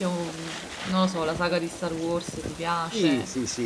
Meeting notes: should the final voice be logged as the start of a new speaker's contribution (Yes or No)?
Yes